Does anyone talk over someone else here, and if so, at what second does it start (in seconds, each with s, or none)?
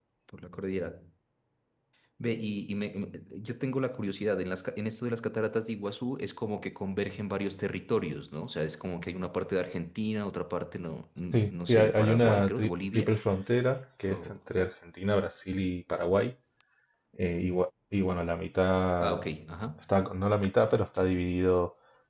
11.3 s